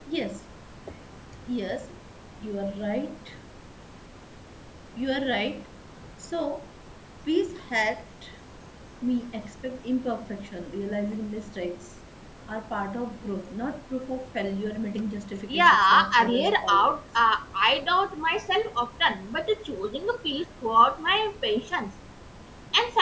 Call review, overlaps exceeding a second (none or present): present